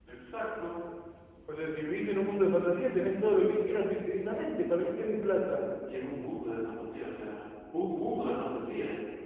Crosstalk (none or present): none